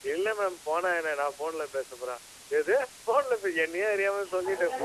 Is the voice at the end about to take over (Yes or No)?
No